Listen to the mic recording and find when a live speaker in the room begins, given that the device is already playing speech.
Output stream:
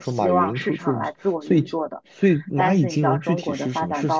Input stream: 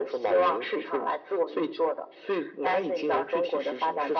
none

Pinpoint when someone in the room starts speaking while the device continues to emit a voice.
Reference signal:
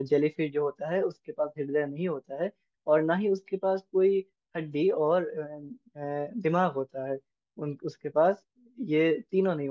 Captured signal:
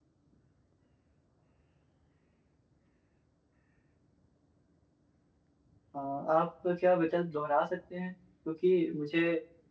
6.0 s

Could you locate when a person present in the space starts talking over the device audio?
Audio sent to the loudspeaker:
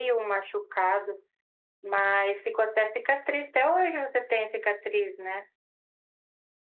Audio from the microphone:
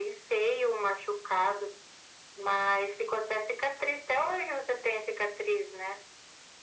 none

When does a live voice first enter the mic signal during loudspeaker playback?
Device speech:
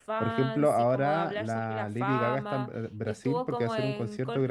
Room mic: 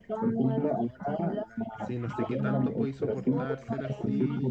1.8 s

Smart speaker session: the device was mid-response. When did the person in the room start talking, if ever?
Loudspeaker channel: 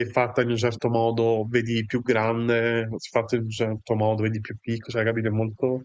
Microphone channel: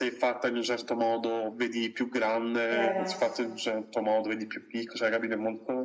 2.8 s

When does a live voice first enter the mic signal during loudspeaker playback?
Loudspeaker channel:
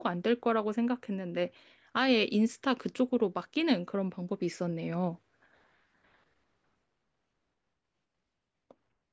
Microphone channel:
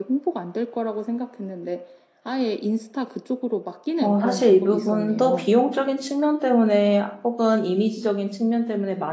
4.0 s

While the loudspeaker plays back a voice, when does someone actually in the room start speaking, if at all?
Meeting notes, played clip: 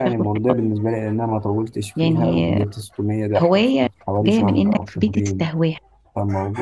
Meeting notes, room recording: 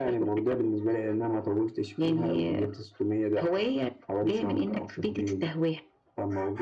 none

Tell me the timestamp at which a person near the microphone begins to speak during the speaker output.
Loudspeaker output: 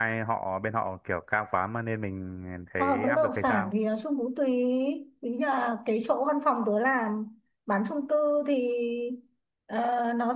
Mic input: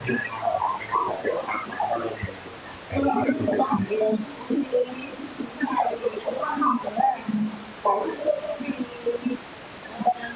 none

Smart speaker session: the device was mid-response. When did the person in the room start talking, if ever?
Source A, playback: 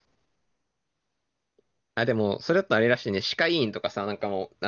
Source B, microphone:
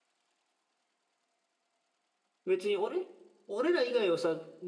2.5 s

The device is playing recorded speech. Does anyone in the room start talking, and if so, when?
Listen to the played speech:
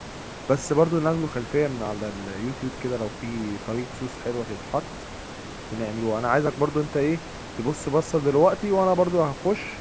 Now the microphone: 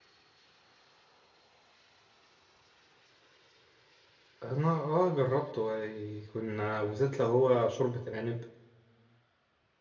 4.4 s

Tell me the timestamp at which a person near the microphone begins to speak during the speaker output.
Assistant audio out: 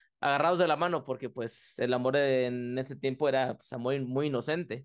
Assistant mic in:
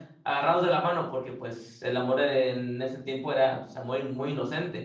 none

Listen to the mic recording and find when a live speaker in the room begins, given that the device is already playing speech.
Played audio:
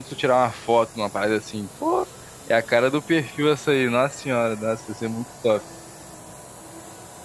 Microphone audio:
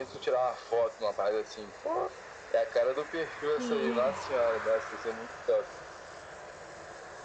3.6 s

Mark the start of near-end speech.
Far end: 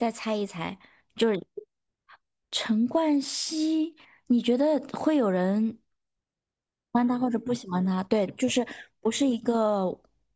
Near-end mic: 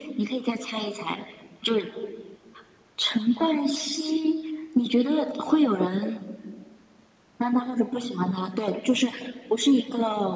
none

